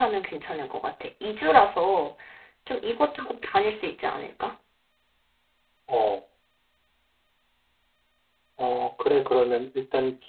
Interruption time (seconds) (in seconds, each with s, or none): none